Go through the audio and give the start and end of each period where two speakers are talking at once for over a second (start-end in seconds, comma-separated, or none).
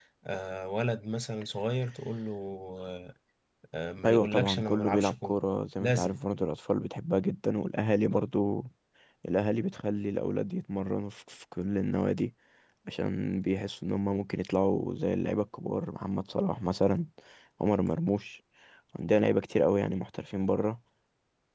4.0-5.3